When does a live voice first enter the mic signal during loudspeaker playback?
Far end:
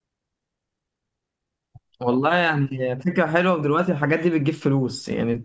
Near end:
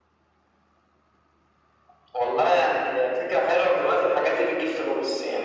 none

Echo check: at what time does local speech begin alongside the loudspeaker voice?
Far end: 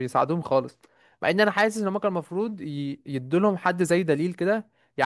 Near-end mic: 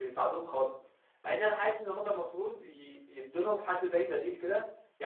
none

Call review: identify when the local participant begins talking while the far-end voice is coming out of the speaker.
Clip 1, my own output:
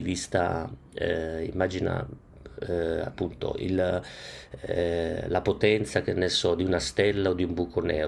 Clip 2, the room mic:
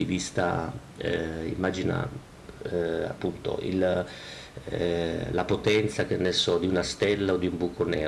none

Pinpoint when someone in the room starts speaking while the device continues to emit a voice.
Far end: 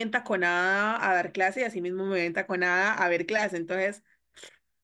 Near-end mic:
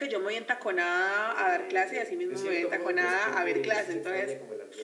1.2 s

